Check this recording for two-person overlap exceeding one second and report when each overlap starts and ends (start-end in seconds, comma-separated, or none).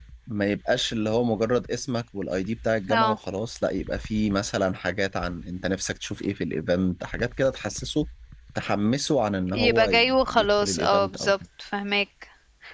9.5-11.3